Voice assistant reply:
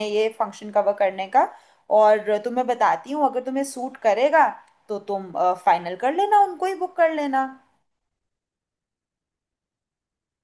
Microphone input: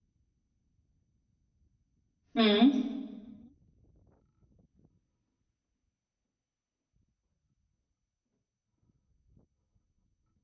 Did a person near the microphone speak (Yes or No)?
Yes